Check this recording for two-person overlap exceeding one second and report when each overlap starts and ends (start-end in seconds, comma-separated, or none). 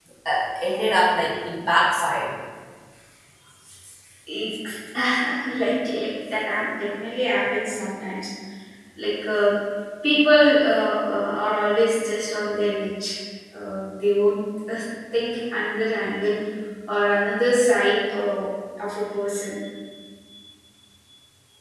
none